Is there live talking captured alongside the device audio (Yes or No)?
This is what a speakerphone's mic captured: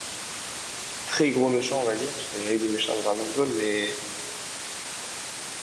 Yes